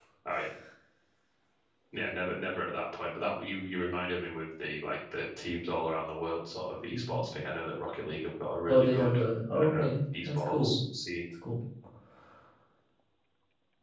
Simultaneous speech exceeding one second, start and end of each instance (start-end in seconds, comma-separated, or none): 9.6-10.8